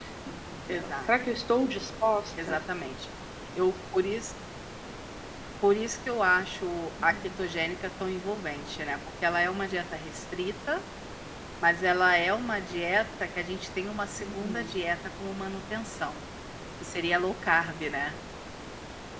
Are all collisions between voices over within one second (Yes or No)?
Yes